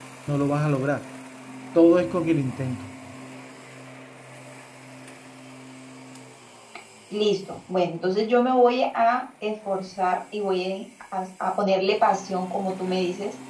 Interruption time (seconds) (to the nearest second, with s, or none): none